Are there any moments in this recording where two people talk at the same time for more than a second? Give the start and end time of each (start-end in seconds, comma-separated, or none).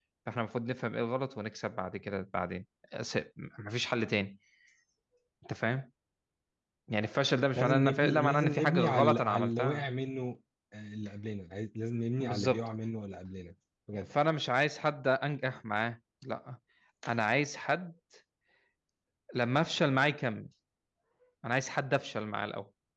7.6-9.9